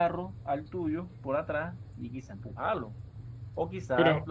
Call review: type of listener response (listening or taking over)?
listening